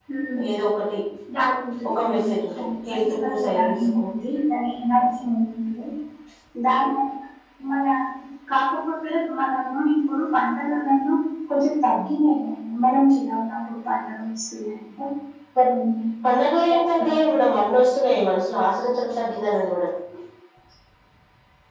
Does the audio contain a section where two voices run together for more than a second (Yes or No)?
Yes